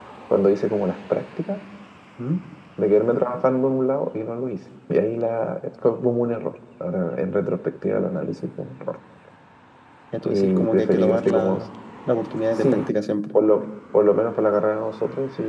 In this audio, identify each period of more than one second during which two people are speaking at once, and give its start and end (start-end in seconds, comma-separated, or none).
10.2-11.6